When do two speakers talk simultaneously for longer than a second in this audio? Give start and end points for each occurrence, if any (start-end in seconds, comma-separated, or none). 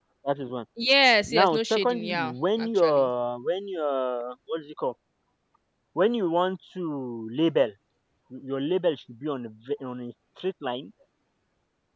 1.2-3.1